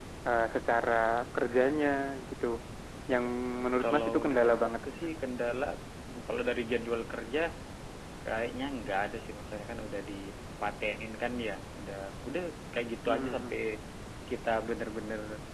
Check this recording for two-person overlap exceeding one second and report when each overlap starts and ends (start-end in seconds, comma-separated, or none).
3.8-5.1